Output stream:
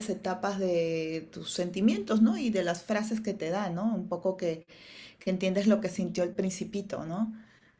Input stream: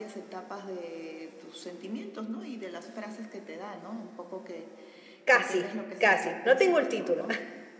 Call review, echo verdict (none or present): present